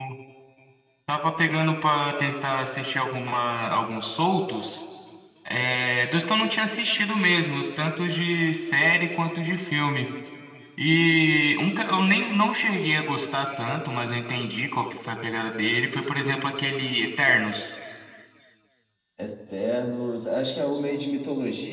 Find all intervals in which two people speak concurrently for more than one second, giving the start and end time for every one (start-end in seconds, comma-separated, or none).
none